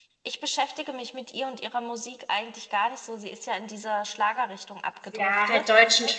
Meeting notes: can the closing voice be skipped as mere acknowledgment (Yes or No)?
No